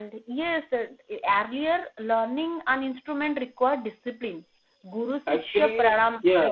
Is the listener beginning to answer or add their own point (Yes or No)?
Yes